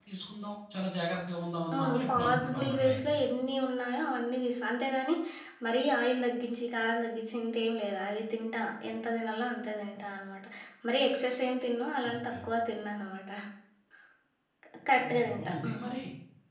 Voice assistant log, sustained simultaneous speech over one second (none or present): present